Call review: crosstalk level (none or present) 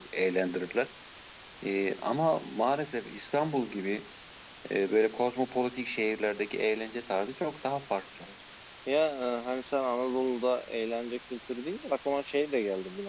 none